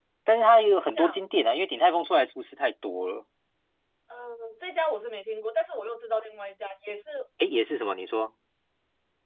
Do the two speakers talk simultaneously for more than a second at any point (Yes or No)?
No